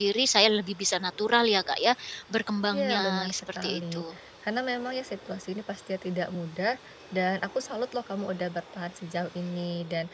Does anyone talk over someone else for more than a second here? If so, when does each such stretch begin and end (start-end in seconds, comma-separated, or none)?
2.7-4.0